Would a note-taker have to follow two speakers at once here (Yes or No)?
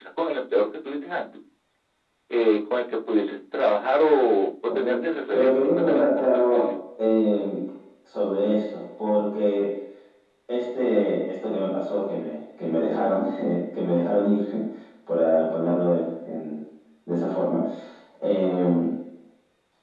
Yes